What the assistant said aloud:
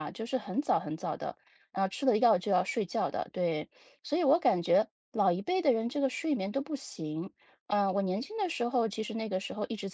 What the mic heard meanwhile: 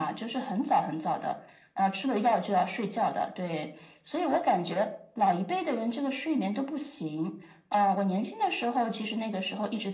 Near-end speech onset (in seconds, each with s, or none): none